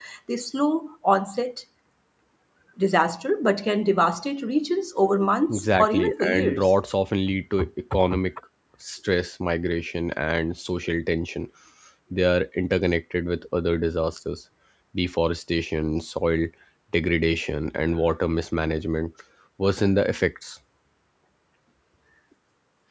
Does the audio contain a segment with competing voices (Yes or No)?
Yes